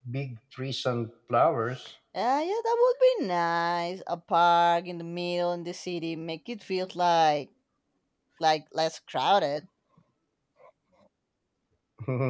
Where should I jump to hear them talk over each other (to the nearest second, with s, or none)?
none